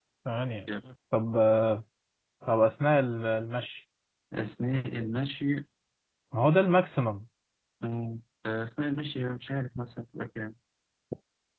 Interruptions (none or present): none